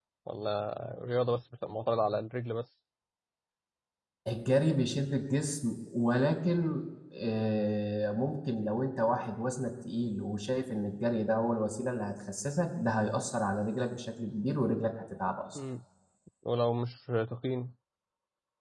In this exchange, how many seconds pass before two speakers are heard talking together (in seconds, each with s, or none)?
none